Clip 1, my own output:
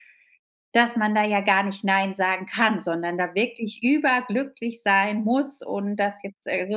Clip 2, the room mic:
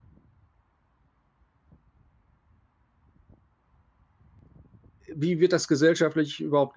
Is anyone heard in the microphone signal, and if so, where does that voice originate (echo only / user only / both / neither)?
user only